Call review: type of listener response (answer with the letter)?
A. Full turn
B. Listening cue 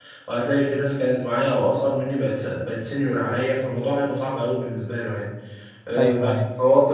B